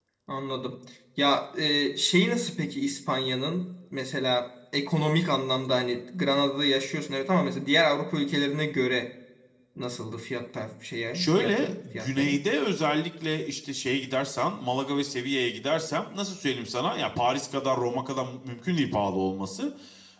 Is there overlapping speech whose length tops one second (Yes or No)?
Yes